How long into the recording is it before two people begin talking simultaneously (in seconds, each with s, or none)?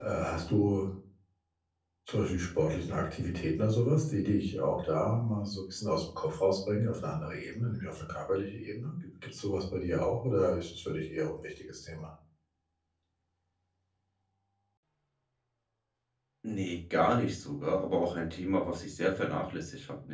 none